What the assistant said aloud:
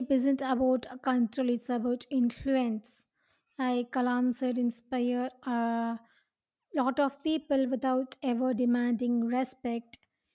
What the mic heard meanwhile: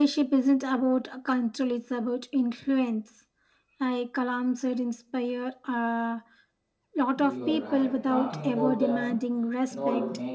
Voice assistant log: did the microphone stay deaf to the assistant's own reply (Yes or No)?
No